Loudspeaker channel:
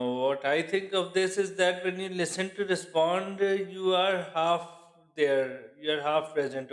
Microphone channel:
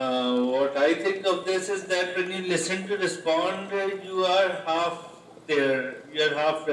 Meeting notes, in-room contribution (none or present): none